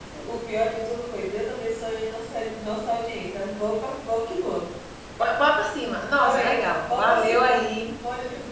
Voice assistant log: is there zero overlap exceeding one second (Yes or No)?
No